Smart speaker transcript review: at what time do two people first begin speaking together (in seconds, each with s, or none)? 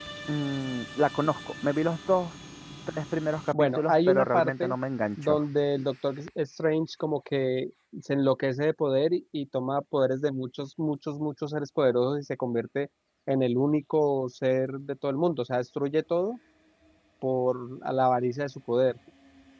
3.5 s